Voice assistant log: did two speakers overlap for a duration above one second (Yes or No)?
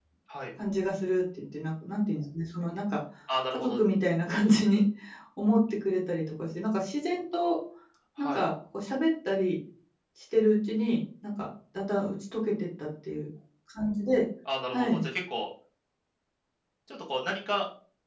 No